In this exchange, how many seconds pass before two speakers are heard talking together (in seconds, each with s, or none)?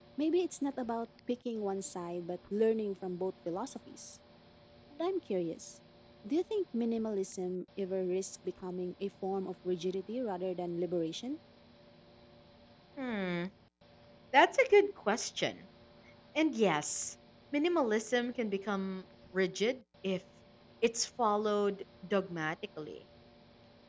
none